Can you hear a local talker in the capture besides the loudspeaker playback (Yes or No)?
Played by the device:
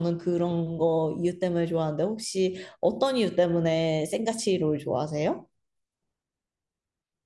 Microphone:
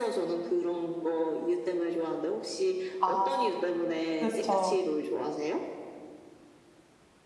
Yes